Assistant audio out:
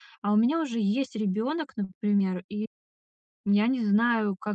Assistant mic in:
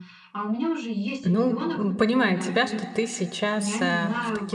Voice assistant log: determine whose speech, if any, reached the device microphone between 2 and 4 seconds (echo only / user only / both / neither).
both